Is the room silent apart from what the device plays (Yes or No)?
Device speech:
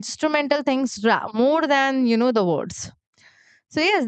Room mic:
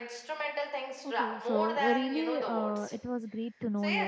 No